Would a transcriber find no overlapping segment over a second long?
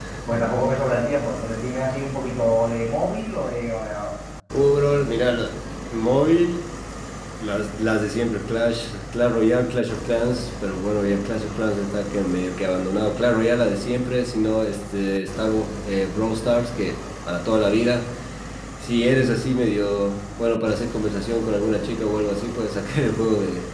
Yes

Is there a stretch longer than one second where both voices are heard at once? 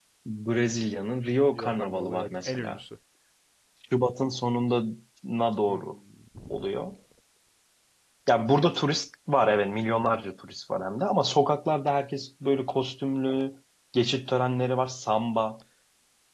Yes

